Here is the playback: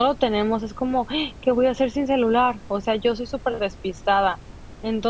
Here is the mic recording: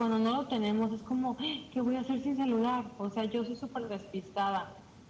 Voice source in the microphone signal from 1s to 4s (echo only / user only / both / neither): echo only